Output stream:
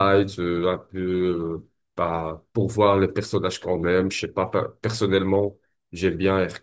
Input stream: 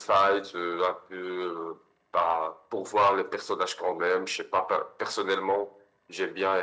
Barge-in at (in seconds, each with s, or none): none